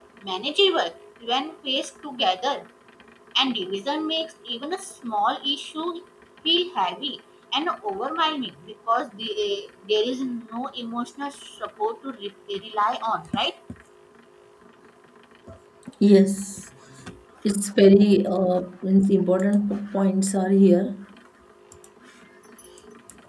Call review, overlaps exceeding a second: none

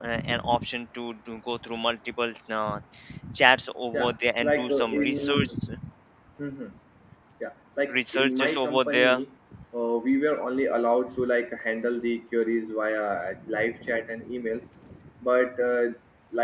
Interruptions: present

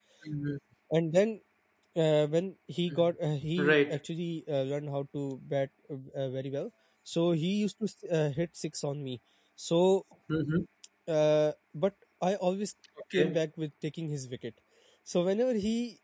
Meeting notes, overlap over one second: none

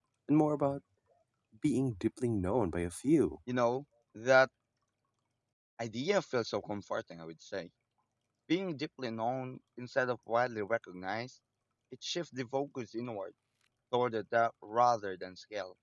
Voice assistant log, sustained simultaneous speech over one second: none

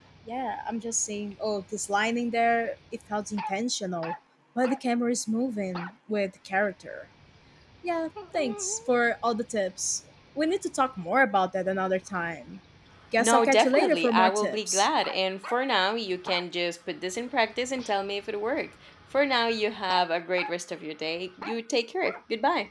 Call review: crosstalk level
present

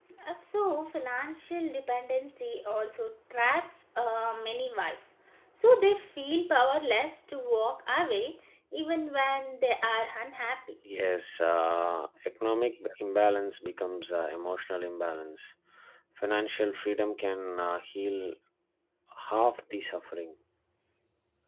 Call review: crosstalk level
none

